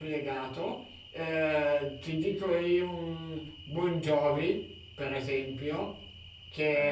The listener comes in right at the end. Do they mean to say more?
No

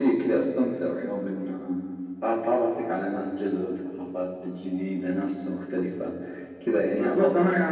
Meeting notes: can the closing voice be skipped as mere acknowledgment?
No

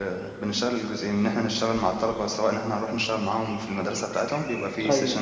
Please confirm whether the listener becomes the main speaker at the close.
No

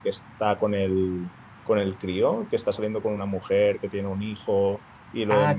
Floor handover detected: Yes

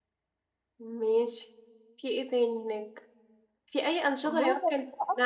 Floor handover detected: No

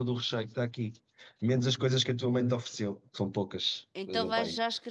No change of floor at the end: No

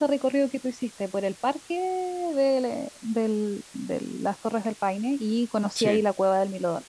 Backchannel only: Yes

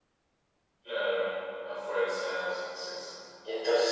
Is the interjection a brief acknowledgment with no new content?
No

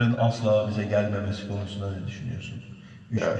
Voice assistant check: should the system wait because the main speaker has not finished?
Yes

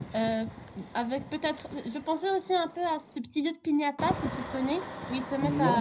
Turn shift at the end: No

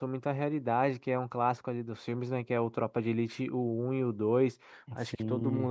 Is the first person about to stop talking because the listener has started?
No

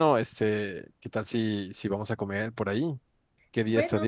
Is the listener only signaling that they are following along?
No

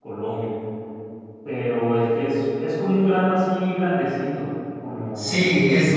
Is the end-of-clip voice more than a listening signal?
Yes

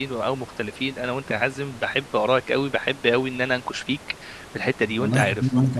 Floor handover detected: Yes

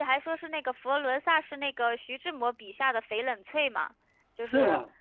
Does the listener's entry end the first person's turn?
Yes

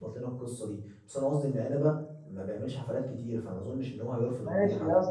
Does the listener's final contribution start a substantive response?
Yes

